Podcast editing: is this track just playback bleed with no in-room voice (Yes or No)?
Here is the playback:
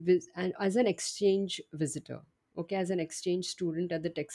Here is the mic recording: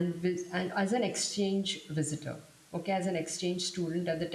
Yes